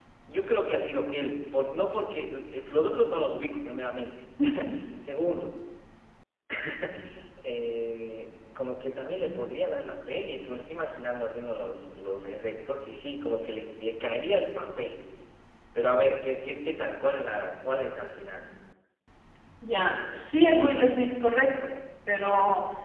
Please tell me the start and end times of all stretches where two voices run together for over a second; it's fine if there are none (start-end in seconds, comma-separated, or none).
none